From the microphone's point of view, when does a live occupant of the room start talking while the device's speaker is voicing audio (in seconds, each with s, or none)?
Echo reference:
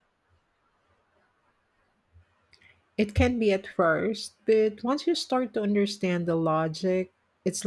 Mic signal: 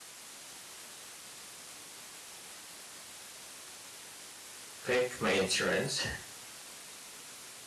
4.8 s